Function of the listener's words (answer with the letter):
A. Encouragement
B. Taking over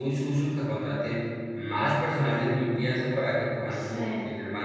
A